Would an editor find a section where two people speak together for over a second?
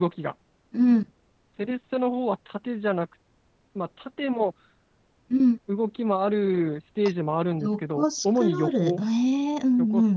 Yes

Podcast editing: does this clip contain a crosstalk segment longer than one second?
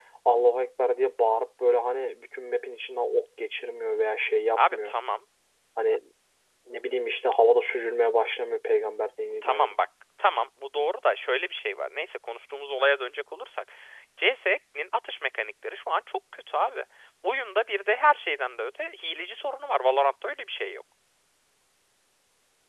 No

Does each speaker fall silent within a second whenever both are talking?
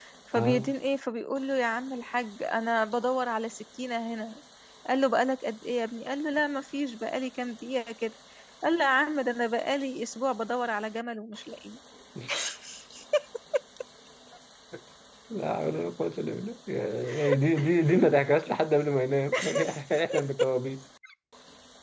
Yes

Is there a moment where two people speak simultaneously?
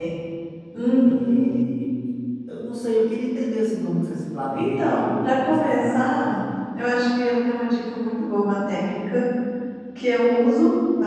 Yes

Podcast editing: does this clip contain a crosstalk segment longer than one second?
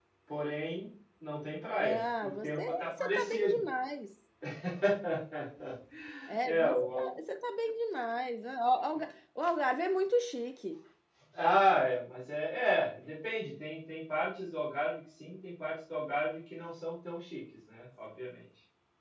Yes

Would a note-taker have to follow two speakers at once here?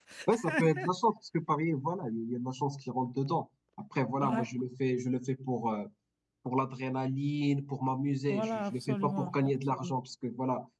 Yes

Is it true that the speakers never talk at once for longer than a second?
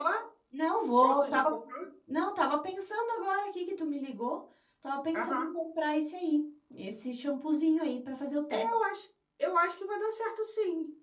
Yes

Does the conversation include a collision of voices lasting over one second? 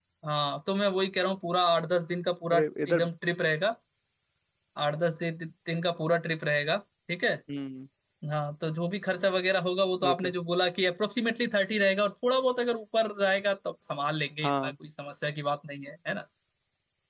No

